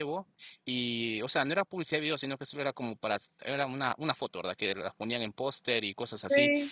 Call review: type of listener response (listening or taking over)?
listening